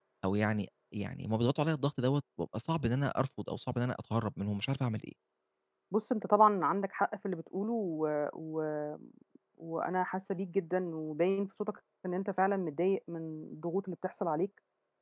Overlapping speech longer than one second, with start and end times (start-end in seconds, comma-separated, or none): none